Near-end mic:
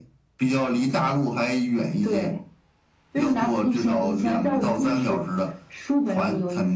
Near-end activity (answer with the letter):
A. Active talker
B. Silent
B